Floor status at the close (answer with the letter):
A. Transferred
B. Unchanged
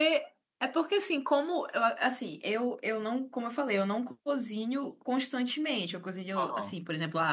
B